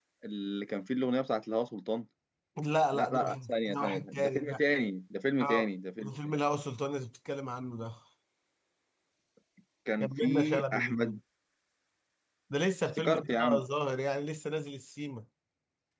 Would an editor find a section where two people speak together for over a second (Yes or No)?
Yes